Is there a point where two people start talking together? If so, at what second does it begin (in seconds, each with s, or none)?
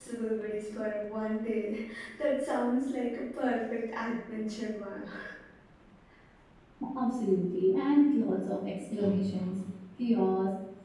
none